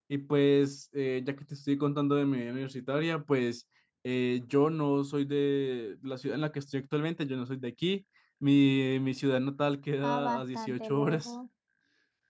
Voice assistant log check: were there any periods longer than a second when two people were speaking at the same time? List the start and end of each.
10.0-11.3

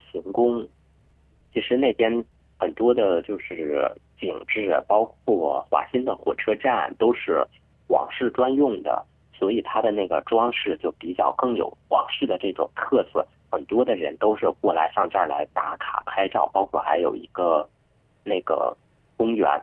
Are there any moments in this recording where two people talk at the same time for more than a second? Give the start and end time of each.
none

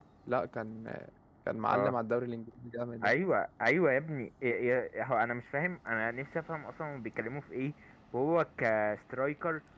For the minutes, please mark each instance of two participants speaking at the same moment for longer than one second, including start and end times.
none

